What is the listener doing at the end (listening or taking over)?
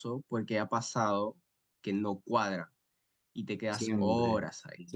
taking over